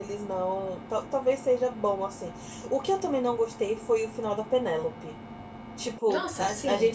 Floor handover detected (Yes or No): No